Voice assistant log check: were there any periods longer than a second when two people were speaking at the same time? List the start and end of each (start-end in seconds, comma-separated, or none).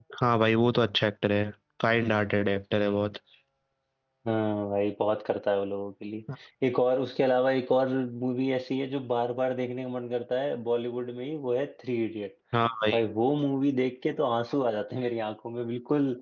none